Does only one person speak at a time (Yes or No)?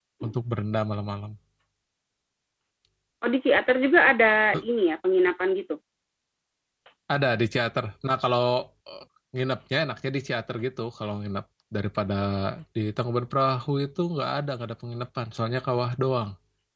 Yes